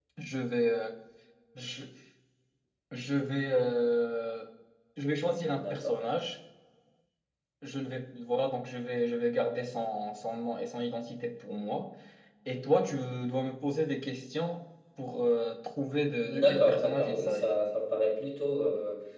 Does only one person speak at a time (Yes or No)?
No